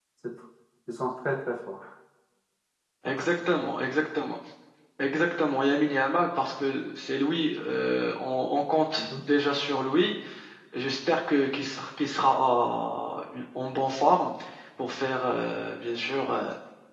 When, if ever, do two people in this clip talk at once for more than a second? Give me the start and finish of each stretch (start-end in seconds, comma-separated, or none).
none